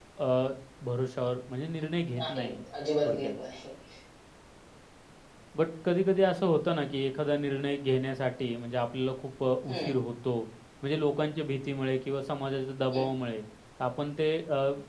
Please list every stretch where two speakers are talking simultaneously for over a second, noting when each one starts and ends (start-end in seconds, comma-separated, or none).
none